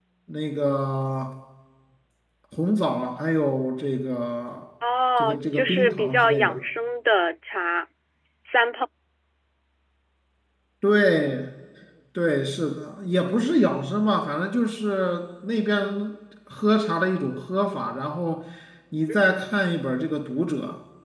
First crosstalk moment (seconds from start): 5.2 s

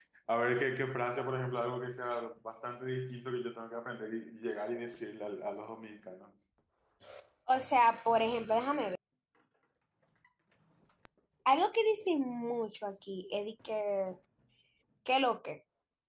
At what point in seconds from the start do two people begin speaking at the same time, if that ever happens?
none

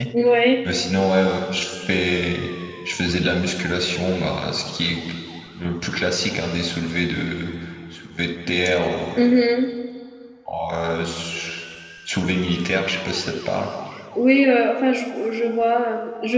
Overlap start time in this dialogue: none

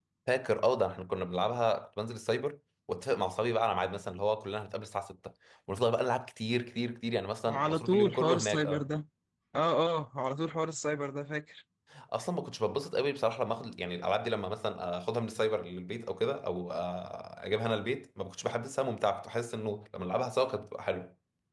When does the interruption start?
7.5 s

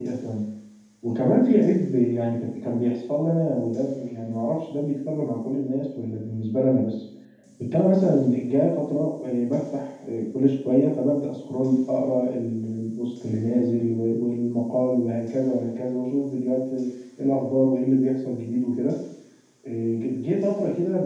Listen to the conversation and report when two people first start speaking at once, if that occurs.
none

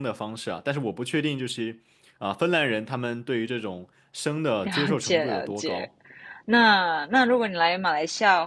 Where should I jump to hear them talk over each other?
4.6 s

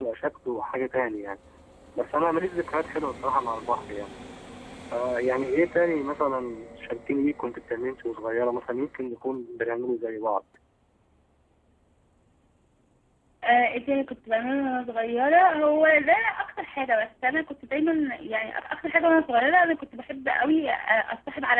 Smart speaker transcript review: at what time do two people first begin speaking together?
none

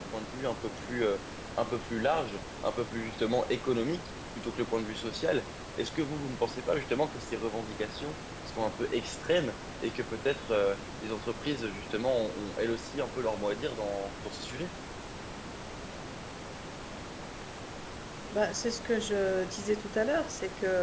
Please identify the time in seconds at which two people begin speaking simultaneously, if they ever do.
none

